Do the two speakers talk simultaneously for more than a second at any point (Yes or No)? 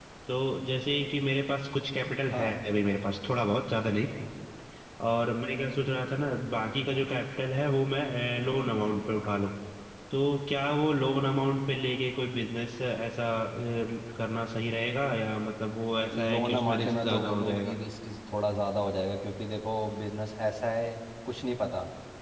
Yes